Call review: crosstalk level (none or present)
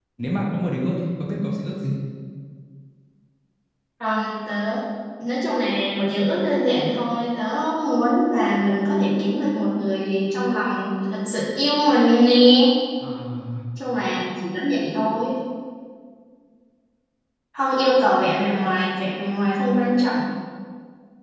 none